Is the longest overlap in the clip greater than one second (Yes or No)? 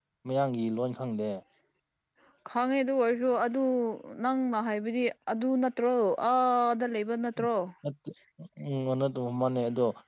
No